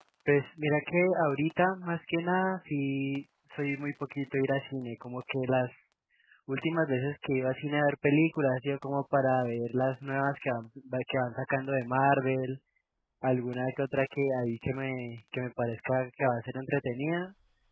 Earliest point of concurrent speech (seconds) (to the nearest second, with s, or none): none